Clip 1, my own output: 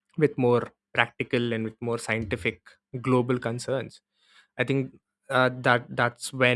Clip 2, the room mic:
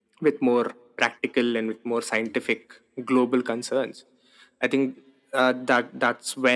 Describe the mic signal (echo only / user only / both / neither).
echo only